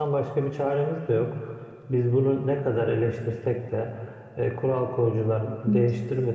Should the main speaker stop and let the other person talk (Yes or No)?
No